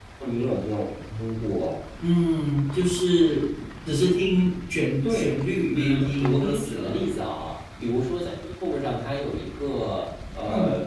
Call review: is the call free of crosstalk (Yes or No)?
No